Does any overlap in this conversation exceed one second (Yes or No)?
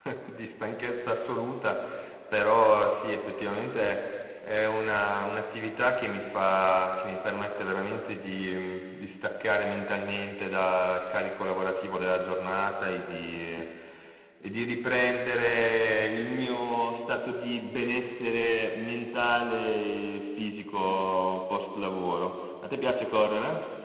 No